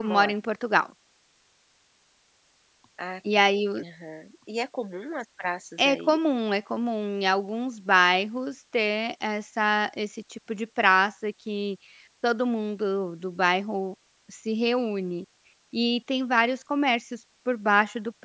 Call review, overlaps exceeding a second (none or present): none